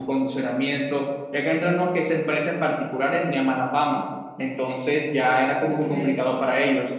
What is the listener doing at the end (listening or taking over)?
listening